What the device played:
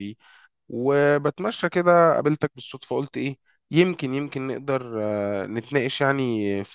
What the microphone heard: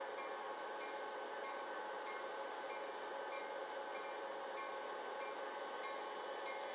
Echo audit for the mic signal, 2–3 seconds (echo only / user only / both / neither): neither